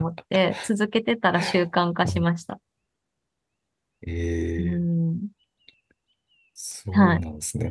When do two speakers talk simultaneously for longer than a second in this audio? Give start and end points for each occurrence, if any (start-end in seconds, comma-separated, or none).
none